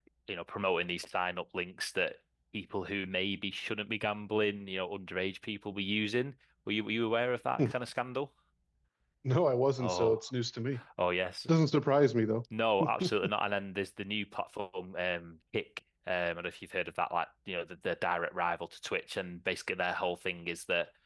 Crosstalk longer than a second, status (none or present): none